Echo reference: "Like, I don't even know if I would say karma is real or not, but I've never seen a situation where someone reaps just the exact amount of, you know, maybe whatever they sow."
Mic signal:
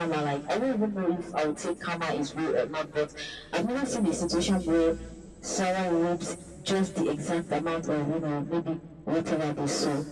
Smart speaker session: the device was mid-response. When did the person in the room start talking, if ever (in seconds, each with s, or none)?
none